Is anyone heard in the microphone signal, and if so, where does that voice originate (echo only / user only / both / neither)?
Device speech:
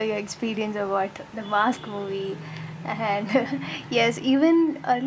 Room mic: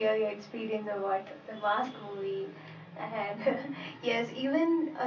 echo only